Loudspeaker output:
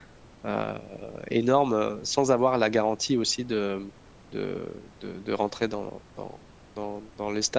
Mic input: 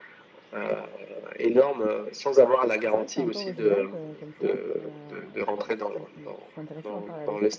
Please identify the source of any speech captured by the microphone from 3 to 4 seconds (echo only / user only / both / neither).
both